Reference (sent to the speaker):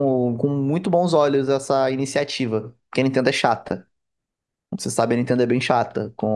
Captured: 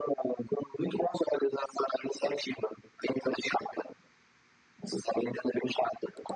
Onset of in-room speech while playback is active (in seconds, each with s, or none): none